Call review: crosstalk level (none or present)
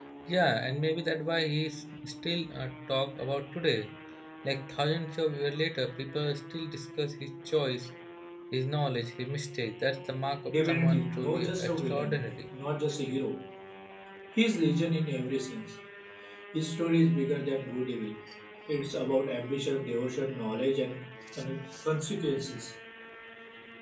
present